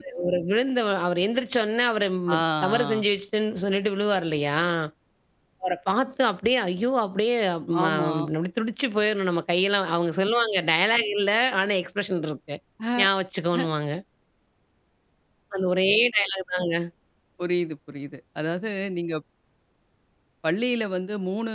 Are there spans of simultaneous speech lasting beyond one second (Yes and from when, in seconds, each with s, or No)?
No